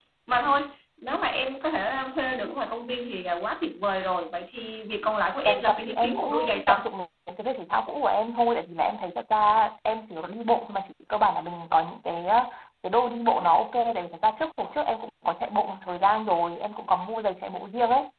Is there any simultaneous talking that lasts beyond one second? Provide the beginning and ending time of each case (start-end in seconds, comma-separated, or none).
5.4-6.8